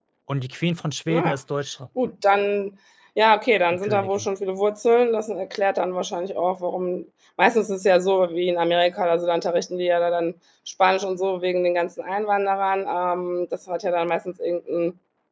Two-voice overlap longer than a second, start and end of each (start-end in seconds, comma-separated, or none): none